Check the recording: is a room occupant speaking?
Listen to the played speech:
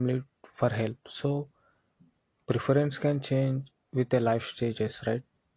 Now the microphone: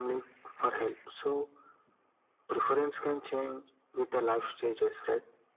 No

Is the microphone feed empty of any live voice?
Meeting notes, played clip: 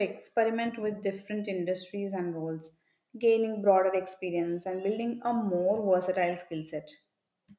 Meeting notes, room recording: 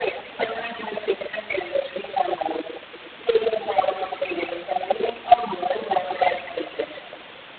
Yes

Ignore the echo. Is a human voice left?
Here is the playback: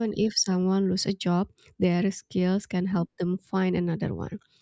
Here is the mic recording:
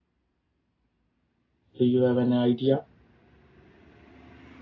Yes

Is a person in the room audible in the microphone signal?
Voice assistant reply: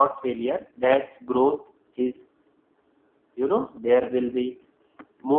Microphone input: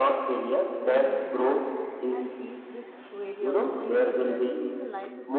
Yes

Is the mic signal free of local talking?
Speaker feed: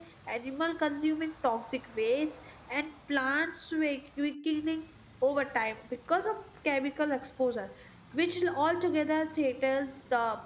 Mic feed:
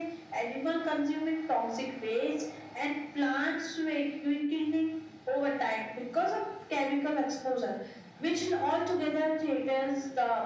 Yes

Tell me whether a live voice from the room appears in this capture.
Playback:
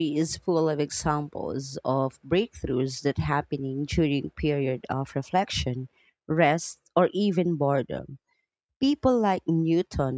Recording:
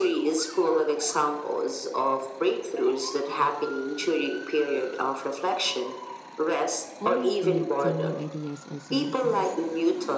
Yes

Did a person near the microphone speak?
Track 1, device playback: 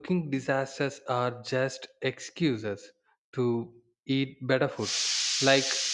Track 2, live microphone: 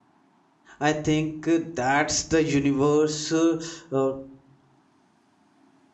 Yes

